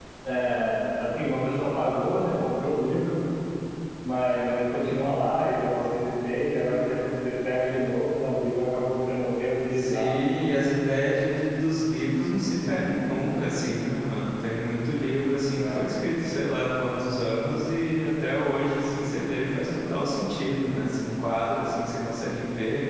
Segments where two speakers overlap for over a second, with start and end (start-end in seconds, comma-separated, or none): none